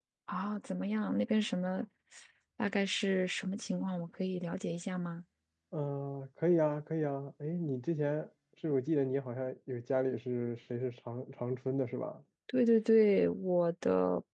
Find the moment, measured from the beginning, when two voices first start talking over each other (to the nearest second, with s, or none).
none